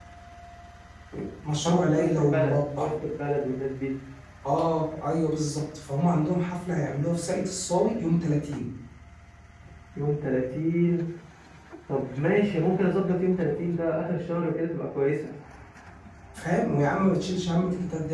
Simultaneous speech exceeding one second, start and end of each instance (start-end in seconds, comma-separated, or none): 1.6-2.9